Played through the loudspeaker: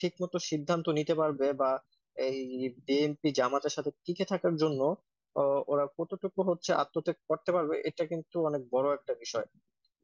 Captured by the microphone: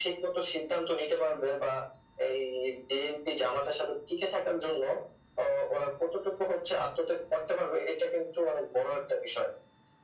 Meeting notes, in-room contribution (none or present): none